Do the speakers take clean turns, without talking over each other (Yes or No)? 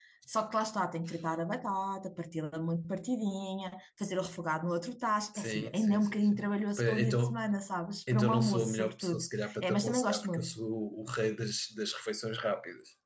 No